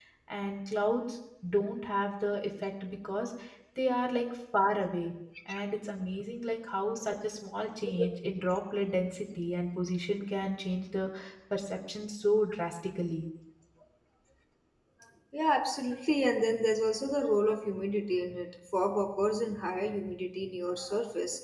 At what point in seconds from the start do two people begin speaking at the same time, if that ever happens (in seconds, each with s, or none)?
none